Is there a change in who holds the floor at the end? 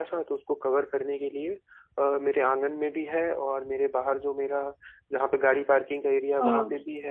No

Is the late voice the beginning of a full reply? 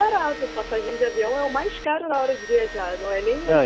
No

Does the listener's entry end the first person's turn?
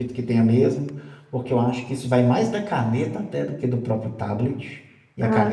No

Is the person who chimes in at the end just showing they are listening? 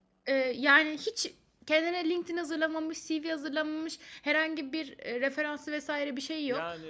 No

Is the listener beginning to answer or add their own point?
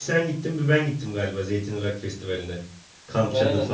Yes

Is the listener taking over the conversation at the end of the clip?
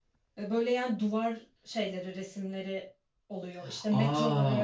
Yes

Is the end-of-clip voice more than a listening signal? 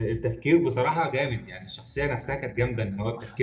No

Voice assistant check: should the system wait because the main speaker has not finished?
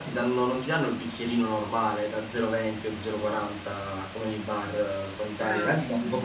Yes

